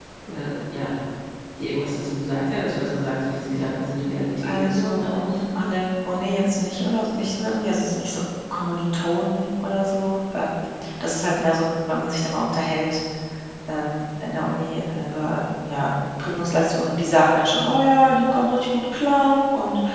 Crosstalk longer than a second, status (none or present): present